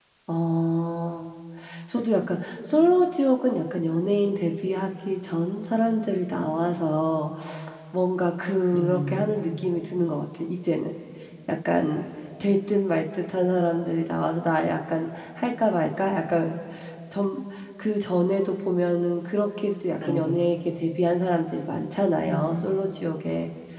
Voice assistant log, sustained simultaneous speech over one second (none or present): none